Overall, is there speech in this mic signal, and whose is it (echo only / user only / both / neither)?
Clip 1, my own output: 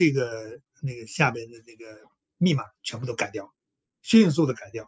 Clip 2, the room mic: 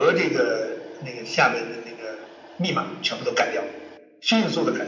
echo only